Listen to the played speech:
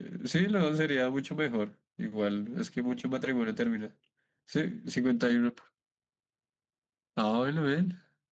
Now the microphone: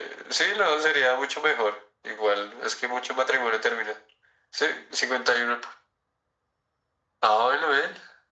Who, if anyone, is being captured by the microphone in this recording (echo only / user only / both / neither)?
echo only